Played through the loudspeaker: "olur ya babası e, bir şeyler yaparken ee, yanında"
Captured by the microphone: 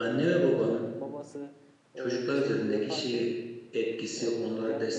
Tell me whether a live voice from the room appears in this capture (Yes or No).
Yes